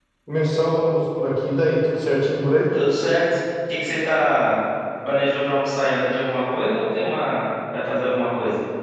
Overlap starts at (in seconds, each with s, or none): none